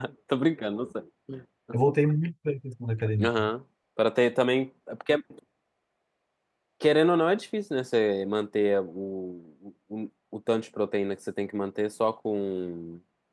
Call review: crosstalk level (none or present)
none